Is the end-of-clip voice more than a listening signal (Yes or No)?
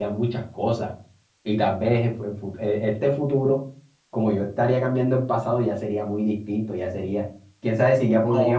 Yes